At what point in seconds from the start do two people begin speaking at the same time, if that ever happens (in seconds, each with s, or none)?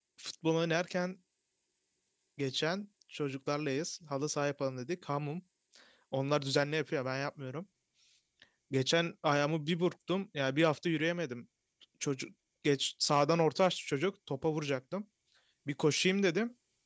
none